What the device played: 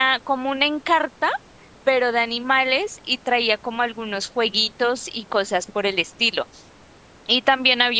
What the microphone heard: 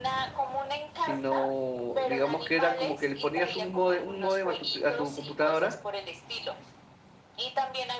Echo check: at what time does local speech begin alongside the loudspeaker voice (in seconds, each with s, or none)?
0.9 s